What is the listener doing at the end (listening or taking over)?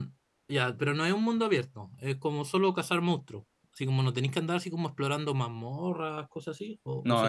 taking over